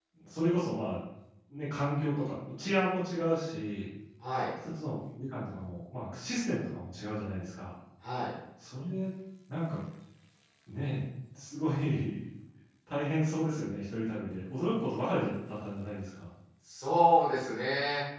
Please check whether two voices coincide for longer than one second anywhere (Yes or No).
No